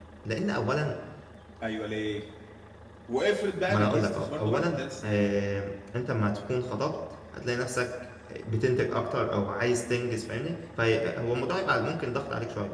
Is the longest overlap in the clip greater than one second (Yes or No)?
Yes